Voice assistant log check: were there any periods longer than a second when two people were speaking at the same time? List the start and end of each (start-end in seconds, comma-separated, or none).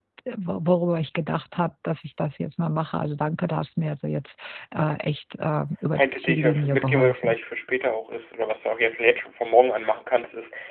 6.0-7.3